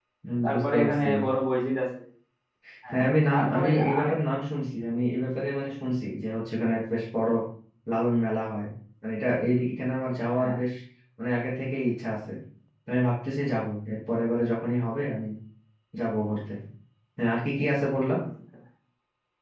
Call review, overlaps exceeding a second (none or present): present